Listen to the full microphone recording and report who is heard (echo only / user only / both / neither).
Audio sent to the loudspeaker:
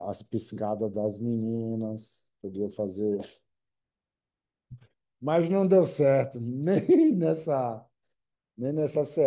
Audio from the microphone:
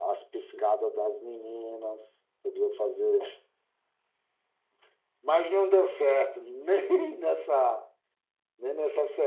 echo only